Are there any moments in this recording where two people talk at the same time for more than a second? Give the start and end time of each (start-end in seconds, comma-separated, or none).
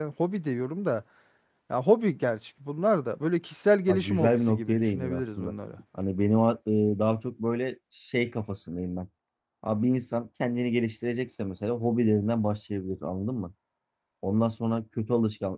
3.9-5.5